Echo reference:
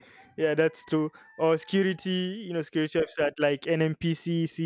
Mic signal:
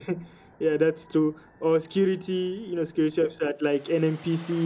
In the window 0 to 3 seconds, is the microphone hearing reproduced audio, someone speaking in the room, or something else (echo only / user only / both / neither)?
echo only